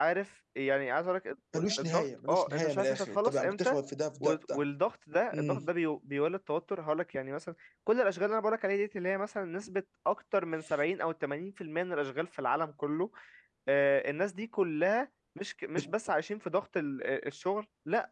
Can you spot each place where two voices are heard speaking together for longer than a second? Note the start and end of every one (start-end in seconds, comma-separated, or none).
1.8-3.8